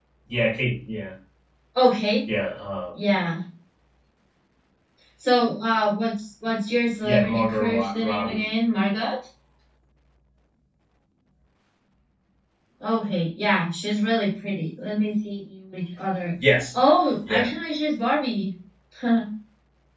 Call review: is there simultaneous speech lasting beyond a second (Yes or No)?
Yes